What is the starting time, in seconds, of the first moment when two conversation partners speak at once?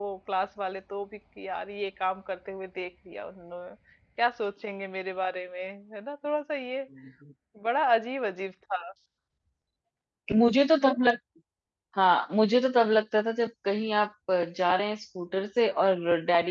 none

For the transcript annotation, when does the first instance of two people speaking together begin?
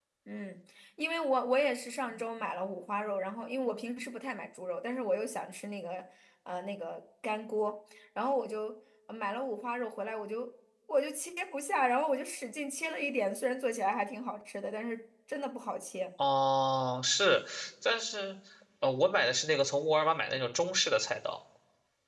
none

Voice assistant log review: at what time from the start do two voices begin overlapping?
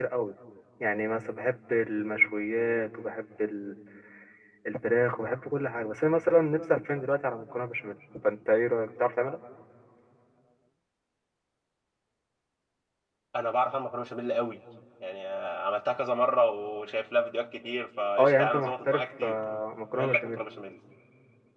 18.2 s

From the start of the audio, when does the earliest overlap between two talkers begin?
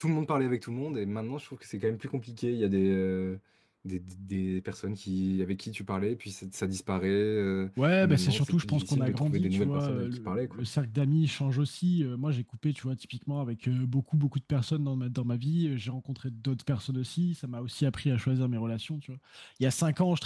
7.8 s

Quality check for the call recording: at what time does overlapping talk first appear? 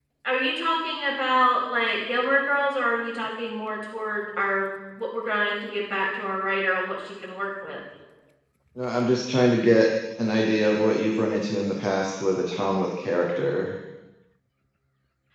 none

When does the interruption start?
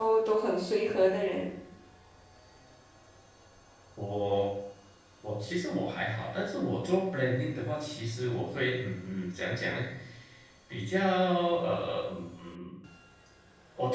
none

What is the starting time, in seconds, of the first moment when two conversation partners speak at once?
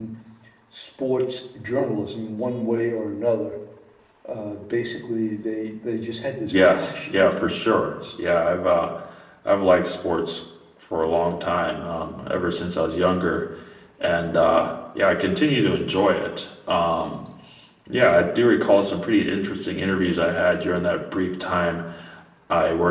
6.4 s

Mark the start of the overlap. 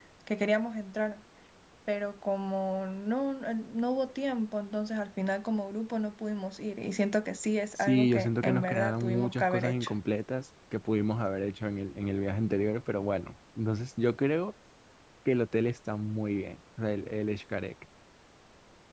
7.8 s

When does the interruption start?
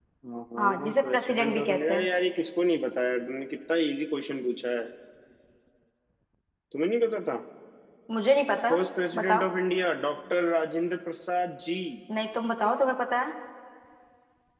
0.6 s

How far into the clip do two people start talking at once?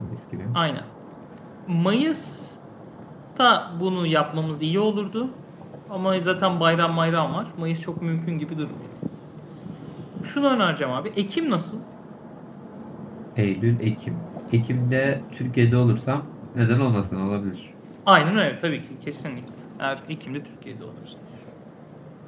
none

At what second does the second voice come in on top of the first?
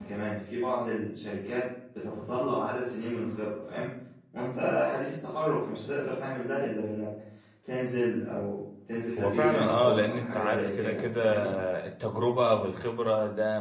9.2 s

